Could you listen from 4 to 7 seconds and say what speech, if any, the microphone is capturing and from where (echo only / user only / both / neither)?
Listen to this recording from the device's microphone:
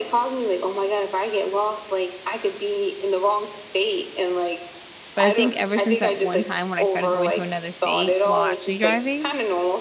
both